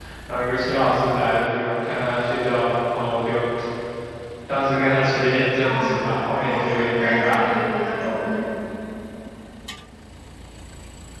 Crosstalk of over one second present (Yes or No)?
Yes